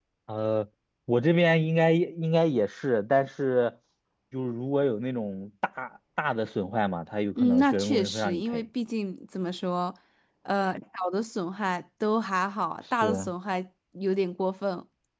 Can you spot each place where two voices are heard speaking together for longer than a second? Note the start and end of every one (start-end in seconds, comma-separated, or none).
7.4-8.6